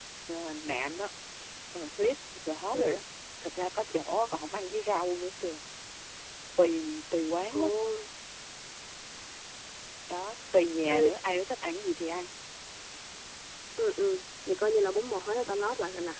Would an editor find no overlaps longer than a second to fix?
Yes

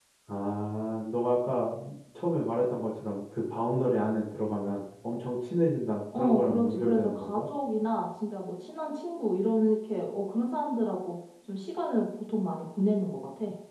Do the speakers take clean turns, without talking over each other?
No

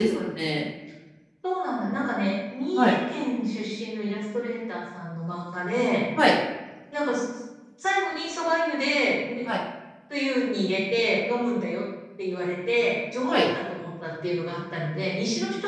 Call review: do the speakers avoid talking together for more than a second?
Yes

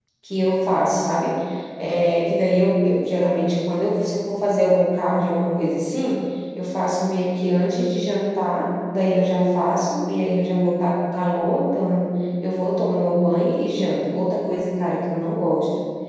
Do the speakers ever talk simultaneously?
No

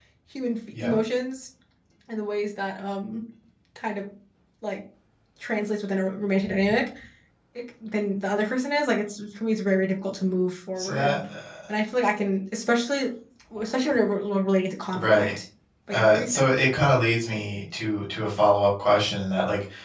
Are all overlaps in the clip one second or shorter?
Yes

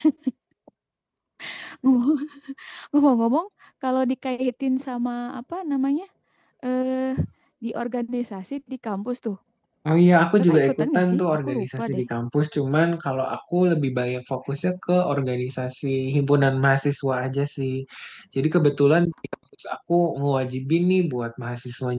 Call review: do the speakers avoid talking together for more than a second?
No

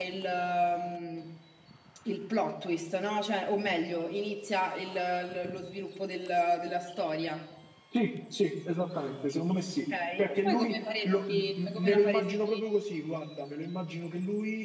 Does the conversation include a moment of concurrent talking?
Yes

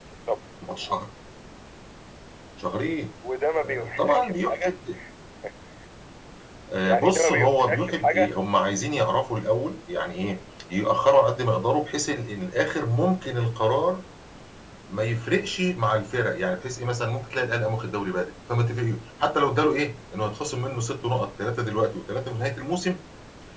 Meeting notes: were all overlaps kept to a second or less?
No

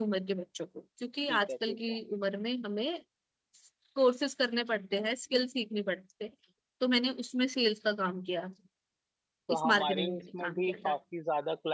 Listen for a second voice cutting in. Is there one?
Yes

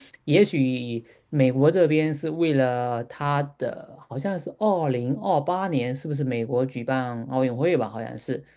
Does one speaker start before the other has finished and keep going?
No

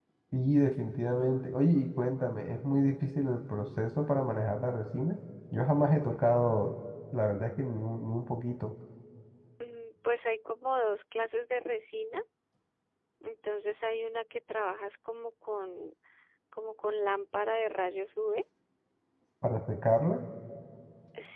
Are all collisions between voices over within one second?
Yes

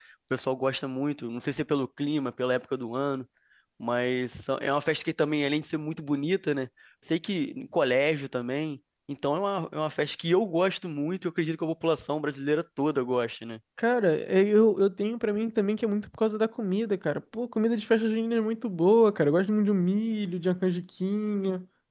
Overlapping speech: No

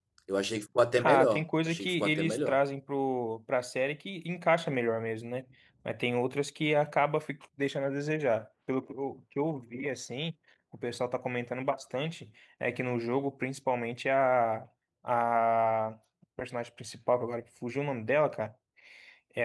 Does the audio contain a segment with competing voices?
Yes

